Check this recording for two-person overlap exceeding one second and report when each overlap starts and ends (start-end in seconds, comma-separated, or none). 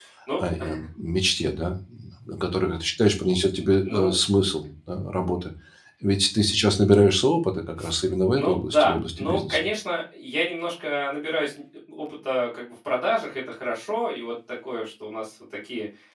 8.3-9.6